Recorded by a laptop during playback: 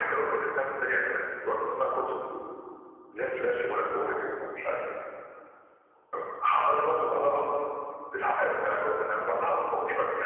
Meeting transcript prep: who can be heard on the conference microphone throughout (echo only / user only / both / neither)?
echo only